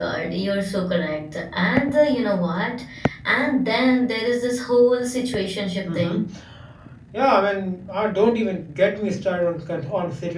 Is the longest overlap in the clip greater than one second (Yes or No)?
No